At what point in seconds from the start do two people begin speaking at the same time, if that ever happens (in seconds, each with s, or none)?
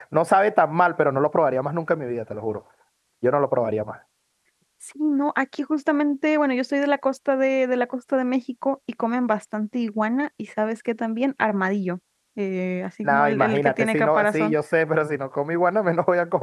13.0 s